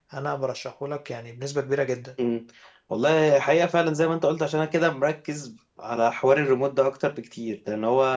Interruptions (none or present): none